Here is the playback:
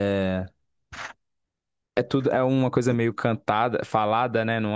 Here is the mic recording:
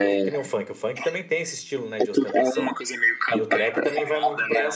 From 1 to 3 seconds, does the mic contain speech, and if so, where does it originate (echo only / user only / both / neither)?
both